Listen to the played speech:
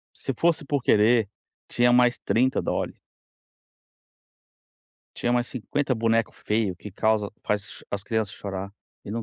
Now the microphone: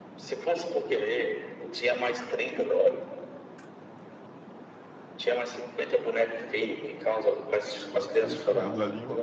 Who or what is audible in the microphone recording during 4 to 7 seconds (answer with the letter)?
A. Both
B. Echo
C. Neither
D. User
B